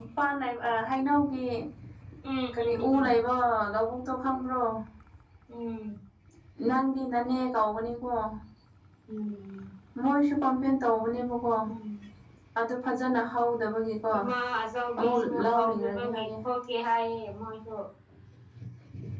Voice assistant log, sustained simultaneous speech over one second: present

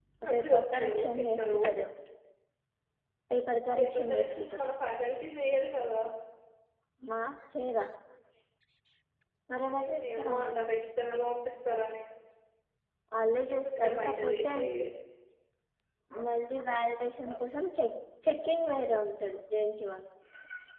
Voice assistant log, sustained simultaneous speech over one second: present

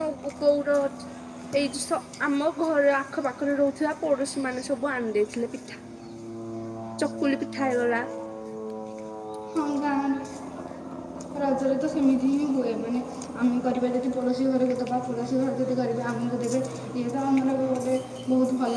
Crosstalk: none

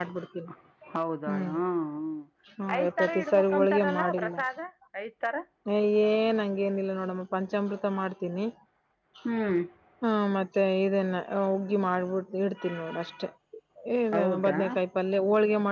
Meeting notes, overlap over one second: present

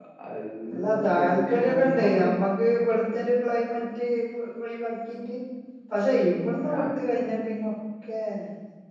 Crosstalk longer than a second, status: present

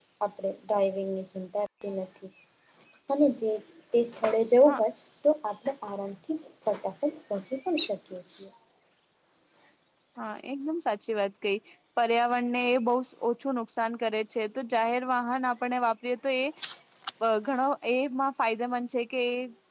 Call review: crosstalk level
none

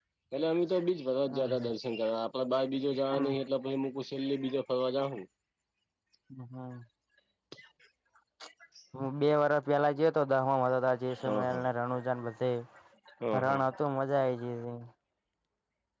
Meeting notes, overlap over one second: none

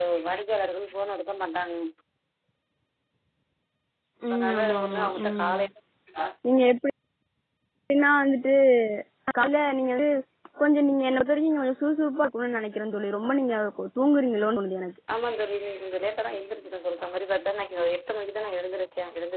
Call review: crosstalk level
present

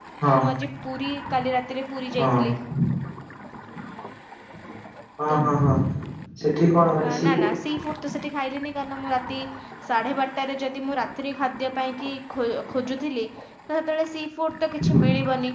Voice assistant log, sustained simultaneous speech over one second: none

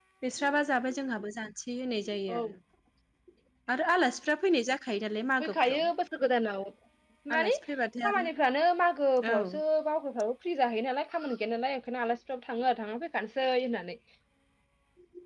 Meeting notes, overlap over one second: none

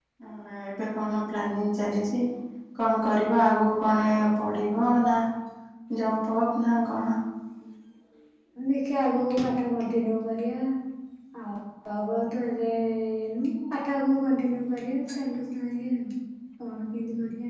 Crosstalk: none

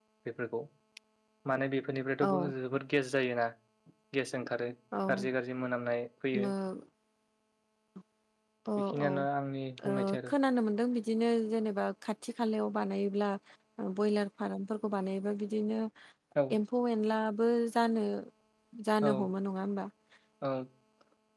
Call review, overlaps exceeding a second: none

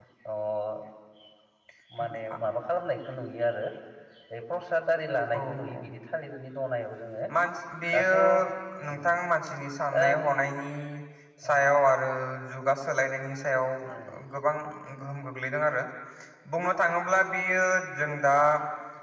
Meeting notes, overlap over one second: none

